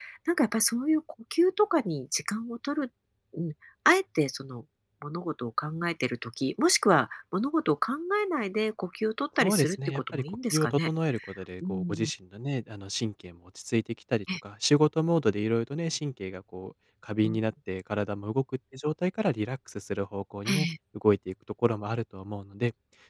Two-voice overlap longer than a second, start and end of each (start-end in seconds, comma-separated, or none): 9.4-10.9